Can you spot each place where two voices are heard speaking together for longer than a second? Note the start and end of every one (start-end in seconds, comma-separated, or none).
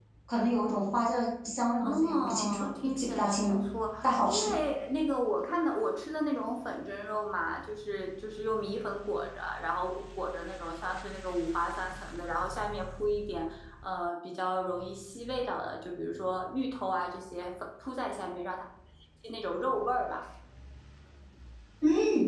1.8-3.6